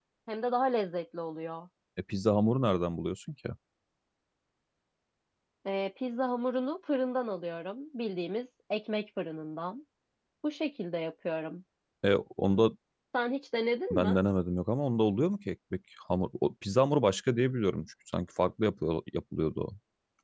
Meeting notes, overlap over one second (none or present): none